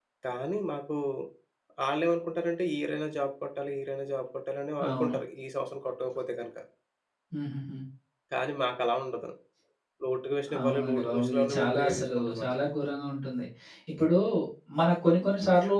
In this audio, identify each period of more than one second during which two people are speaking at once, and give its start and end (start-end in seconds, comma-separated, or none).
10.6-12.5